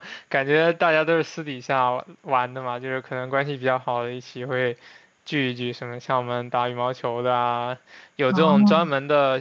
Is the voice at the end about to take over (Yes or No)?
No